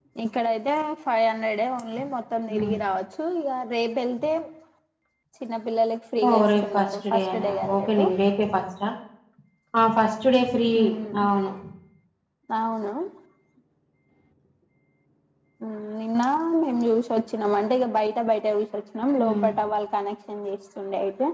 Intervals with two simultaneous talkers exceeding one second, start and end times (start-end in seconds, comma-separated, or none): 6.2-8.0